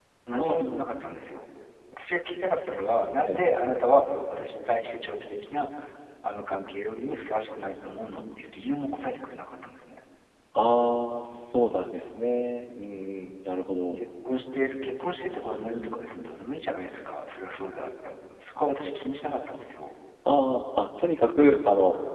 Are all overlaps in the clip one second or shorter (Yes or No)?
Yes